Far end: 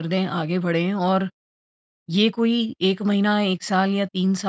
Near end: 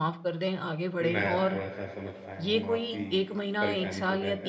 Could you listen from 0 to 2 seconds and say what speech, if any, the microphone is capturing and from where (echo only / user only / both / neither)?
both